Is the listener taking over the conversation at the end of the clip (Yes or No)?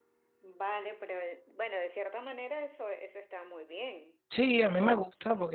Yes